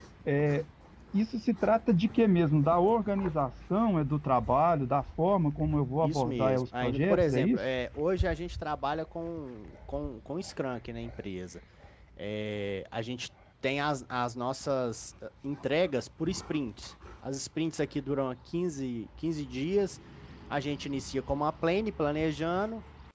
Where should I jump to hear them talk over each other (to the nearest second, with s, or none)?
6 s